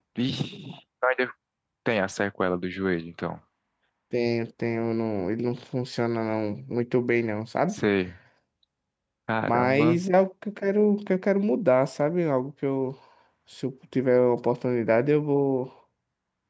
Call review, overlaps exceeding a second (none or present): none